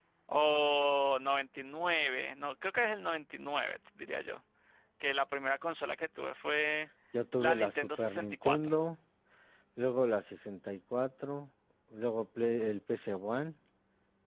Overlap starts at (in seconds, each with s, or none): 7.4 s